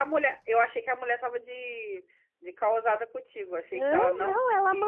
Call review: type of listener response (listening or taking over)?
taking over